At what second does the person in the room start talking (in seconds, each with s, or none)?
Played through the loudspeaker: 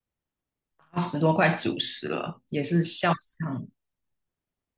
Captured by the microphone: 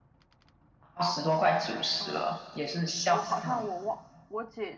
2.0 s